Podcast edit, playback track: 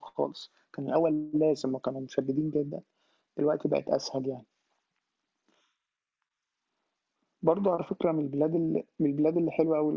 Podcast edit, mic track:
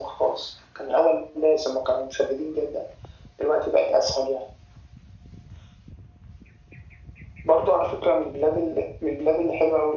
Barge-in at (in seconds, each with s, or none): none